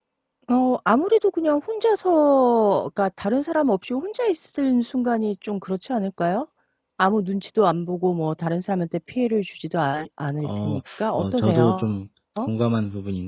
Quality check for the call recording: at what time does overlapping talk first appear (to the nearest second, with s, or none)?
10 s